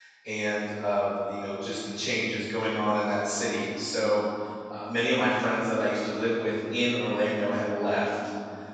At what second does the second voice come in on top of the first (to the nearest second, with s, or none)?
none